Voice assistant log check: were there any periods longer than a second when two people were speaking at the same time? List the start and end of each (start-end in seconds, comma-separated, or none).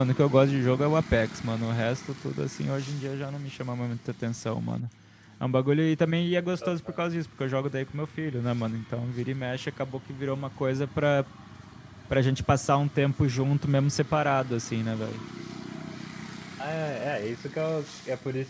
none